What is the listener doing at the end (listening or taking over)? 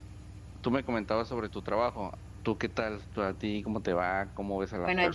taking over